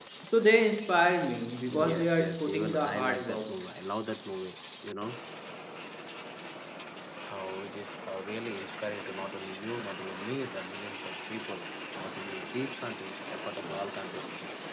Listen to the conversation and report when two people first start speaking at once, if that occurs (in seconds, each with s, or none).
1.7 s